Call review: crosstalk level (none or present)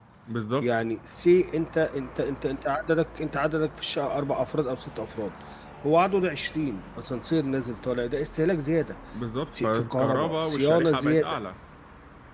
present